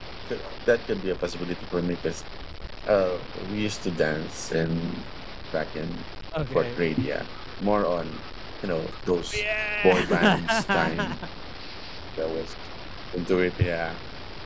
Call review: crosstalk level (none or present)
present